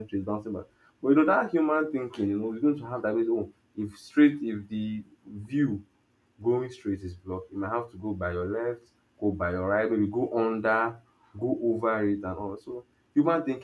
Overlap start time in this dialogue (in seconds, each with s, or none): none